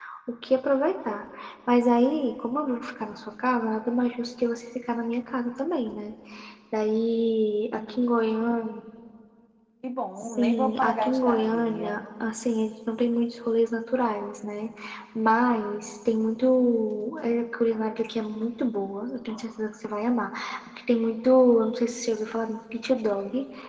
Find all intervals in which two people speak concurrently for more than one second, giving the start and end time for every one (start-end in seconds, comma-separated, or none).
10.2-12.0